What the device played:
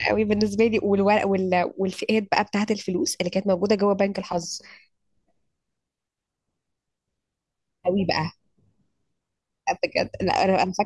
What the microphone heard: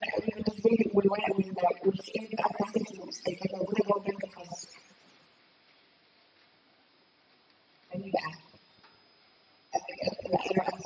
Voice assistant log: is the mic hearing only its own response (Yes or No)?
Yes